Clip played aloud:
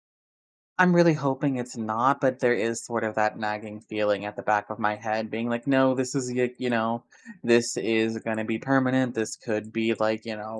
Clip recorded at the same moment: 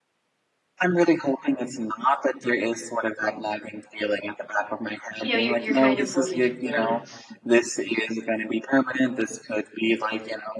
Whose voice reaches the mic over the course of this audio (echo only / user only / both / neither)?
both